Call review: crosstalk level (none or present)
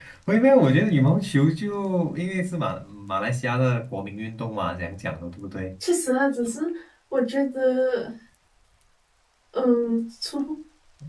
none